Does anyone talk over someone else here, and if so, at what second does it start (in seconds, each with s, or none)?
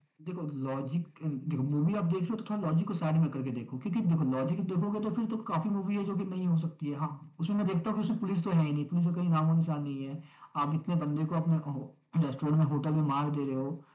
none